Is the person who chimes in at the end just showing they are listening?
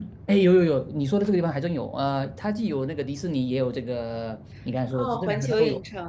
No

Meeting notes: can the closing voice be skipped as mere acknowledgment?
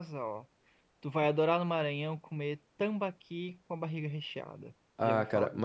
No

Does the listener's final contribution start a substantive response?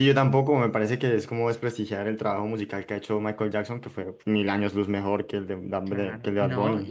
Yes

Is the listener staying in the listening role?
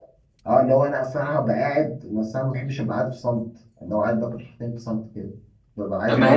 Yes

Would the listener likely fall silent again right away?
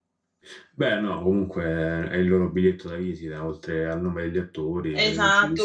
No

